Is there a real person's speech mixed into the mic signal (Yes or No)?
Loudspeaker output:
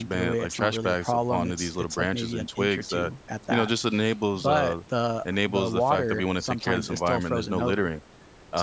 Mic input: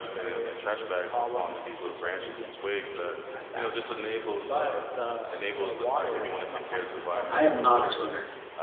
Yes